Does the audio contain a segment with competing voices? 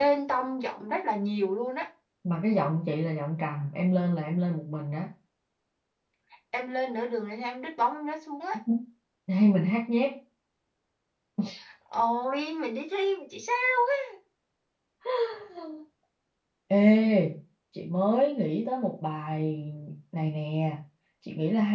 No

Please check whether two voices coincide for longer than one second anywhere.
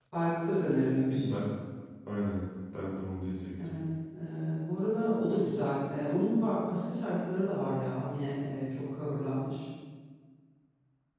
No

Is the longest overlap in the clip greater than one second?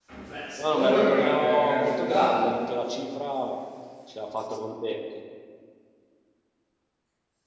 Yes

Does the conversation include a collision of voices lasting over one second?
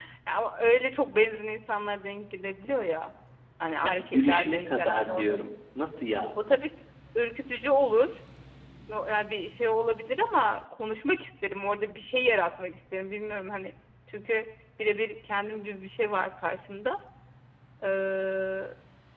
Yes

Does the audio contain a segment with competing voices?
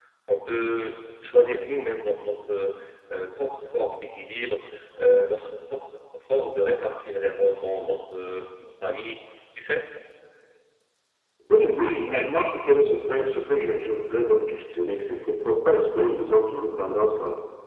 No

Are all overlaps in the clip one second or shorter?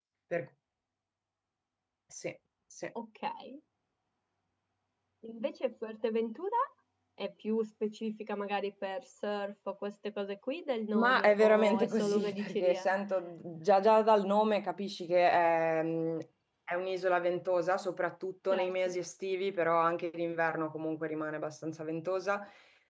No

